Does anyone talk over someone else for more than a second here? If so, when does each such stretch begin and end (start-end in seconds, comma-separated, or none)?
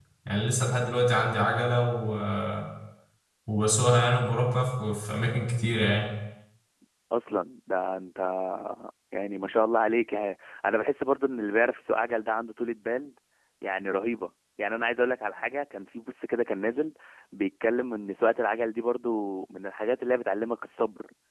none